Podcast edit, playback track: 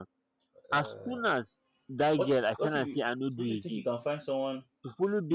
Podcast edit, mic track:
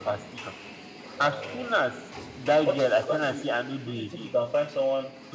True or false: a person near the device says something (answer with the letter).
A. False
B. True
A